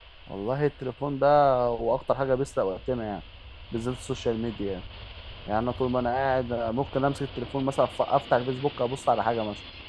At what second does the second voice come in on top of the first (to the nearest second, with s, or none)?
none